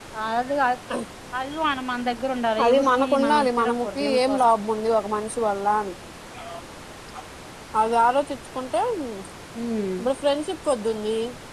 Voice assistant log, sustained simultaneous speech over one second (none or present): present